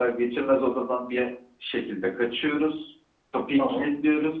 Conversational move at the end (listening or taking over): listening